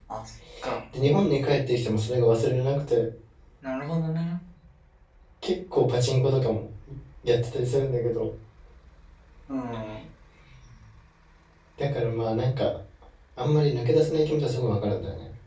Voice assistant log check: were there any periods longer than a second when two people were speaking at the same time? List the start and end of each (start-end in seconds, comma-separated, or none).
none